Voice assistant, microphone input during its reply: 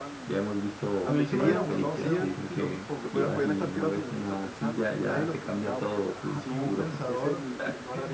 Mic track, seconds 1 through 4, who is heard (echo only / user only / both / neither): both